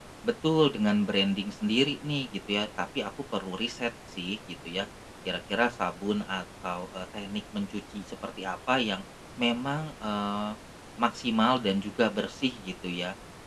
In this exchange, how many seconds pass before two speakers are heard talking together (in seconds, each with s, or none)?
none